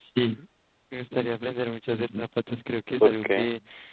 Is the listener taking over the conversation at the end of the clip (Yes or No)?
No